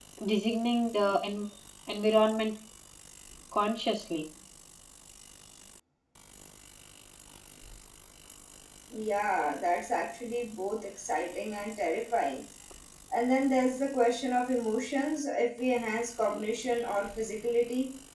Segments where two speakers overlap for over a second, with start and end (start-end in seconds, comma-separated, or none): none